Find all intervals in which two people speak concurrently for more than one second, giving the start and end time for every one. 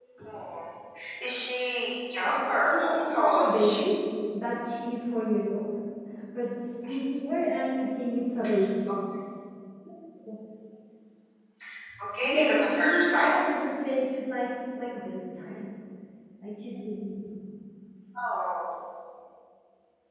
2.2-3.8, 12.2-13.5

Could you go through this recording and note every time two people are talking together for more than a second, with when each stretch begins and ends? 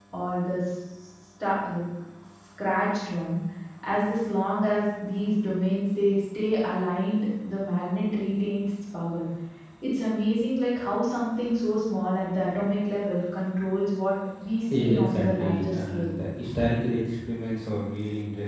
14.8-16.1

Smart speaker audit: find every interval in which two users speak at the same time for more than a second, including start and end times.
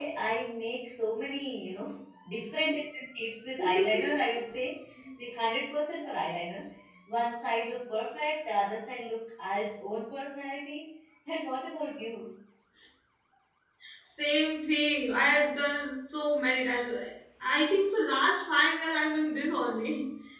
none

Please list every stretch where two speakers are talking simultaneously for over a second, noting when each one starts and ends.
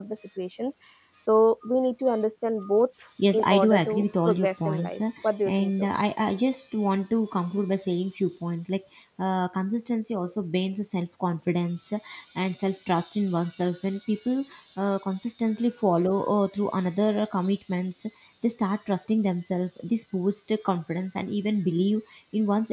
3.3-5.0

